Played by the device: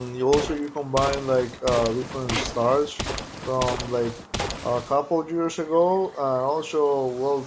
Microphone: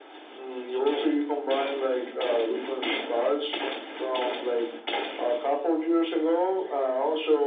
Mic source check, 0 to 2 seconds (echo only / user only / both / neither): echo only